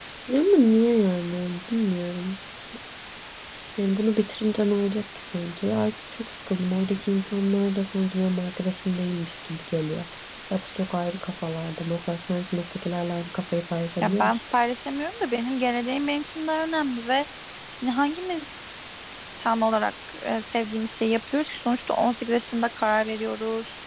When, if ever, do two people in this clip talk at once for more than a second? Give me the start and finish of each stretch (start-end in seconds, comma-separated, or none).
none